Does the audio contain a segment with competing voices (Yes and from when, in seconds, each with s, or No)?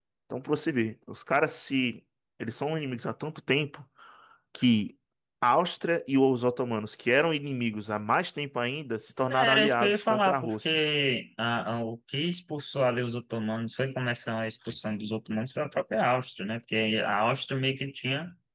Yes, from 9.3 s